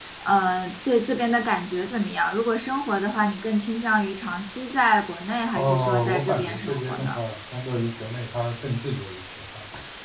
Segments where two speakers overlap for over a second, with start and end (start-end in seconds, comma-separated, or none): 5.5-7.2